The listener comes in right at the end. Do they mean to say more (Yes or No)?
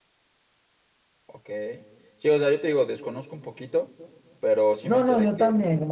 Yes